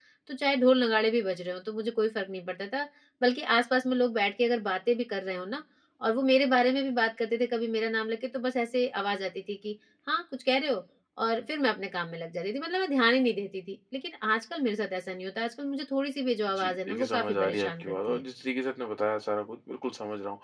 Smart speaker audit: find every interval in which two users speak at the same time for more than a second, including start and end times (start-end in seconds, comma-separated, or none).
16.5-18.2